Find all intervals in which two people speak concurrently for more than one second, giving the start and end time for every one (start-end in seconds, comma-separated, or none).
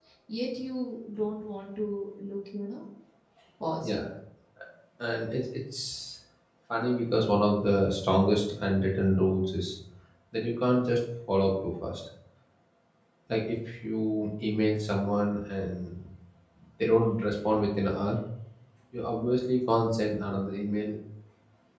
none